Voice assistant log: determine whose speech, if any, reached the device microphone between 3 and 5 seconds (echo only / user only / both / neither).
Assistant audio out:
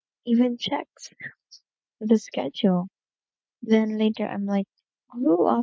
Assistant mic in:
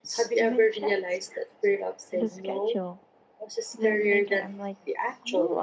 both